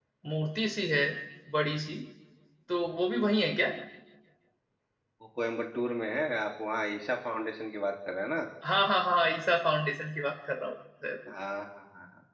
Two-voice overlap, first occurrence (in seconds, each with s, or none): none